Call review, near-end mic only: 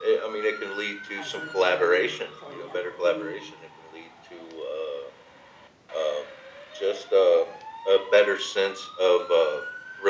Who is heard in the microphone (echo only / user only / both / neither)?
both